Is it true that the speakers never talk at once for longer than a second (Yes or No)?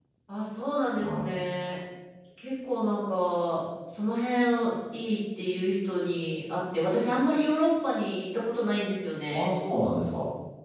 Yes